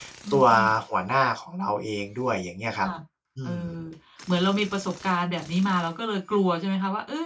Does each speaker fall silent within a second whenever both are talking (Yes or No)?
Yes